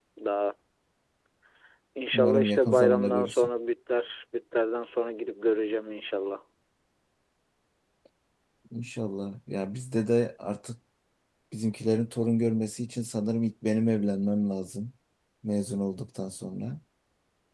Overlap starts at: 2.1 s

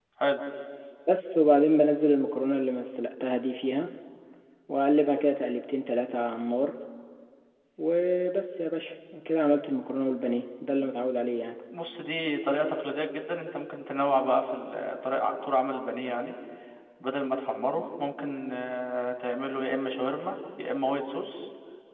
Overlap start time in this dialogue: none

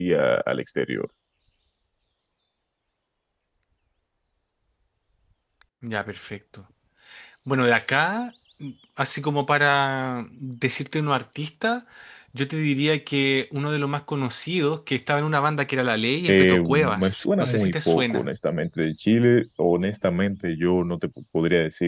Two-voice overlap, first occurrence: 16.3 s

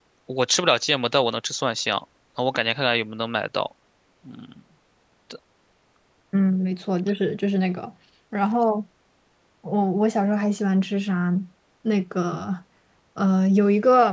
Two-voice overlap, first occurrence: none

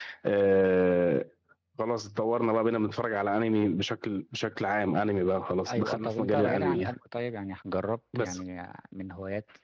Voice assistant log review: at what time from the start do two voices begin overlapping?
5.6 s

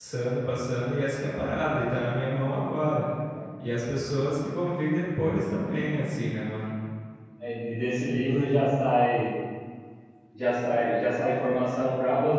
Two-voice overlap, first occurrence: none

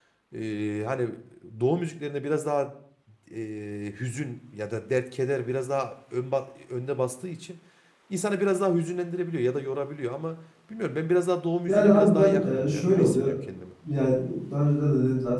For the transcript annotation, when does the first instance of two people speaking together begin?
11.7 s

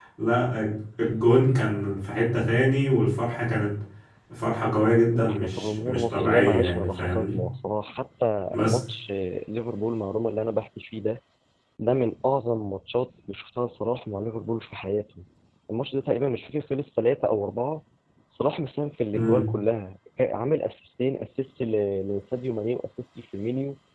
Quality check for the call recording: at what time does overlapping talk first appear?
5.1 s

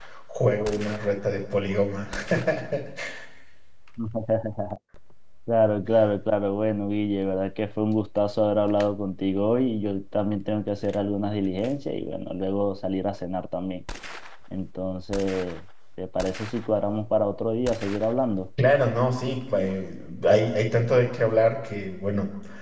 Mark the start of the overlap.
none

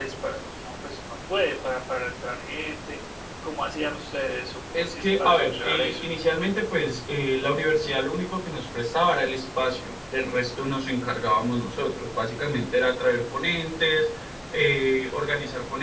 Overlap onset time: 4.7 s

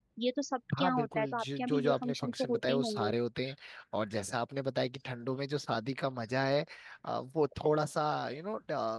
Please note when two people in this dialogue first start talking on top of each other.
0.8 s

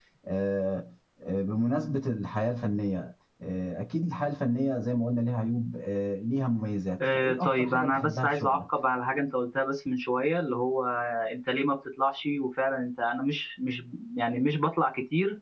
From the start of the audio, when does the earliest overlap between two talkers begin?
6.9 s

